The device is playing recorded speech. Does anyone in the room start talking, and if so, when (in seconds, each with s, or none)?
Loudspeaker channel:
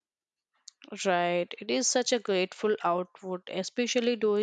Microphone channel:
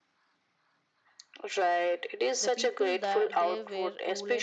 2.4 s